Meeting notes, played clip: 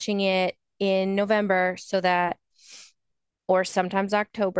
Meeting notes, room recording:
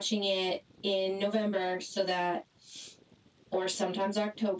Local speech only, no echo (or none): none